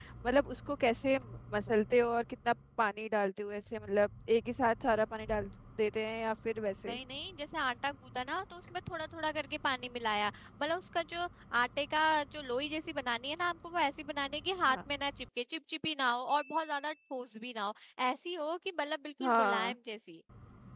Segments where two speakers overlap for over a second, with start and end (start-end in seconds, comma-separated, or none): none